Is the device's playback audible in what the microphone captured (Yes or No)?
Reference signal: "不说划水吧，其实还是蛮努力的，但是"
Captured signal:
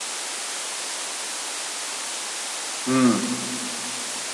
No